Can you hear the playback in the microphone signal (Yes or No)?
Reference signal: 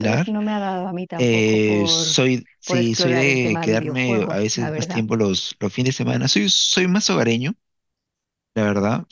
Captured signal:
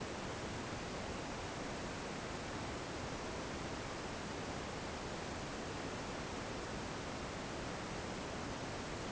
No